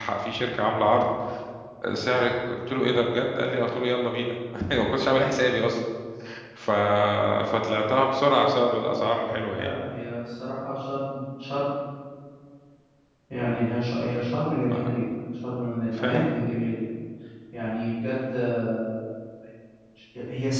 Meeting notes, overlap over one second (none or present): none